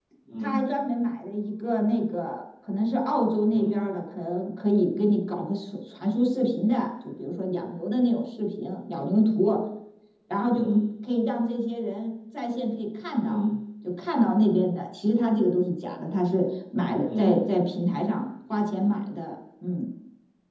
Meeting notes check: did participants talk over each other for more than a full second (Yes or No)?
No